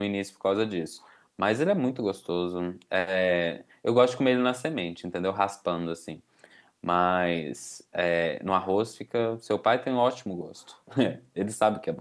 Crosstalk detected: No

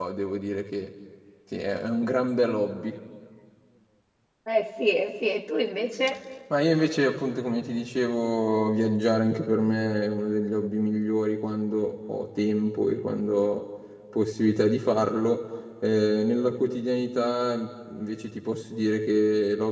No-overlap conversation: Yes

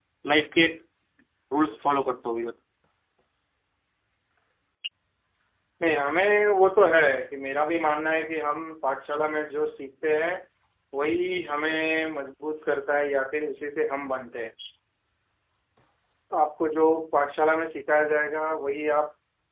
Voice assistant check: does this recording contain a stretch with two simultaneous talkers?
No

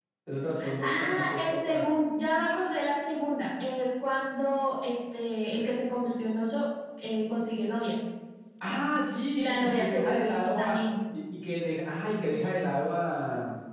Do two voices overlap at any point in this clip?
Yes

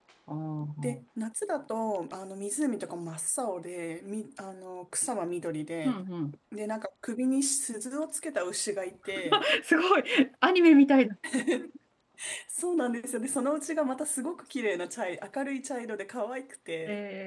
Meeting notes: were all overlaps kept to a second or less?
Yes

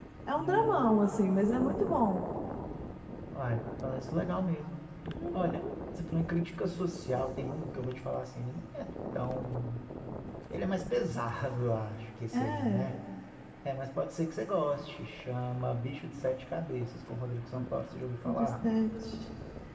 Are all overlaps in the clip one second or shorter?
No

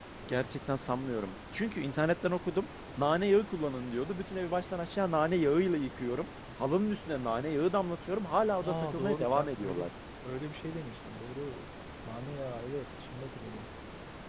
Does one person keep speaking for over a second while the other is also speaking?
Yes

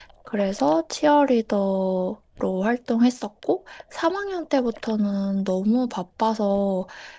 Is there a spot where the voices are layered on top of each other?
No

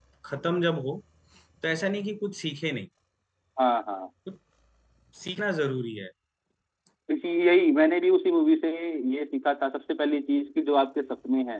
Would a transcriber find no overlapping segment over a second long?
Yes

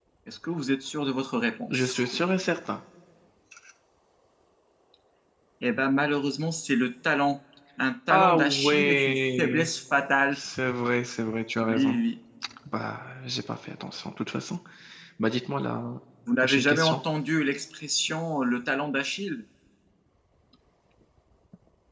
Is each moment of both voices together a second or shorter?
No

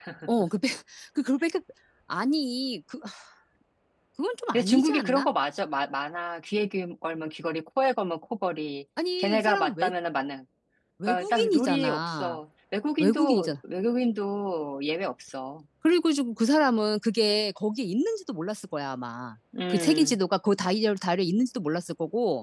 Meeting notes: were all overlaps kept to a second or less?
No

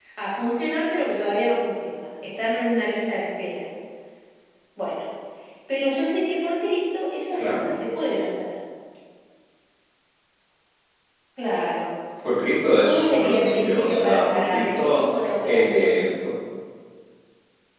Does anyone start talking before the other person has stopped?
Yes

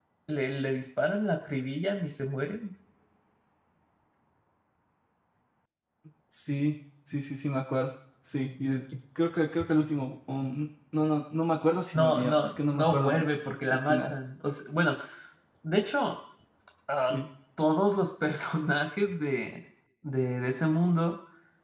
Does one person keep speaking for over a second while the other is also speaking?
Yes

